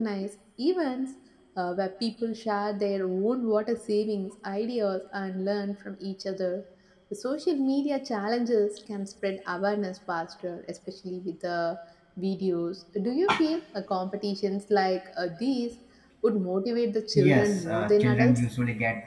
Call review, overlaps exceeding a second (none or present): present